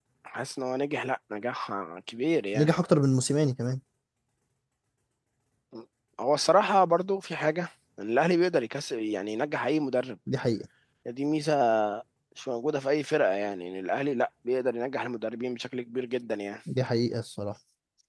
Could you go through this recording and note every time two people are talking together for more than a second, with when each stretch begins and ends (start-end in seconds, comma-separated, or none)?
none